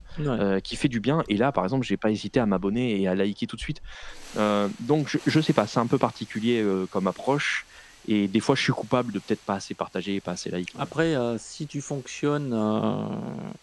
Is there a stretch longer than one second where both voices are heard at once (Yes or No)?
No